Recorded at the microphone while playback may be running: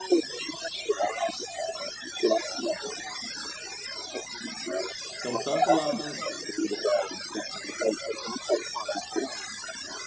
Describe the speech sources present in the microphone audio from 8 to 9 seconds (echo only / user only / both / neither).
echo only